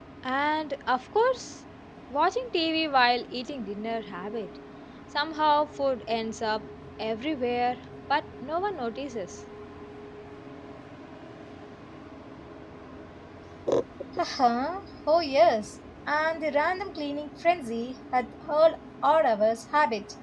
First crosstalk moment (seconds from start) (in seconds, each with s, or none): none